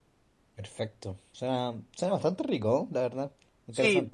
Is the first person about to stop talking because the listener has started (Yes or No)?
Yes